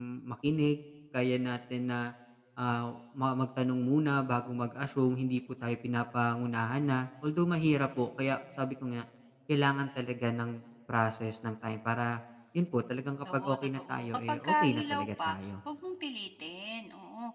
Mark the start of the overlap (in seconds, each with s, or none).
13.2 s